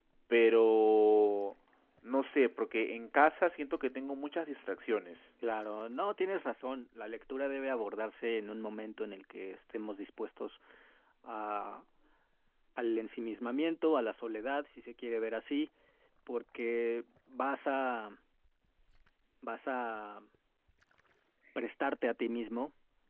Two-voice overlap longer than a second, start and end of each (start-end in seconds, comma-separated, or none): none